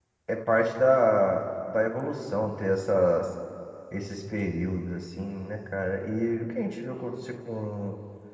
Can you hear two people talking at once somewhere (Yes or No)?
No